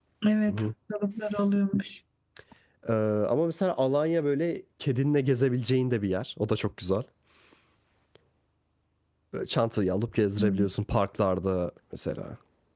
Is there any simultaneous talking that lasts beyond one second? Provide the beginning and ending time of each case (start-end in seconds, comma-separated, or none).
none